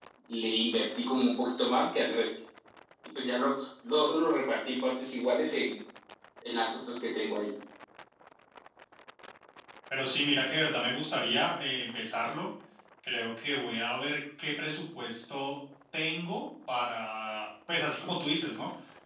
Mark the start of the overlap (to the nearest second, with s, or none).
none